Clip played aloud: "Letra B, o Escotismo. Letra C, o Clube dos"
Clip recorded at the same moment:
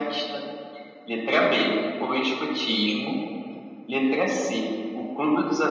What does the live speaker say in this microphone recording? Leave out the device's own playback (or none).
none